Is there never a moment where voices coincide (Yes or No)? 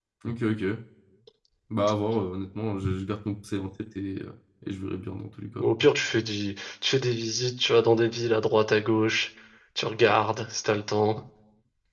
Yes